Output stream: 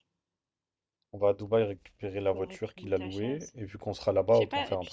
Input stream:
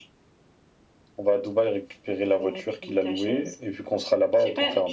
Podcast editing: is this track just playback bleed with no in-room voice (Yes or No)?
Yes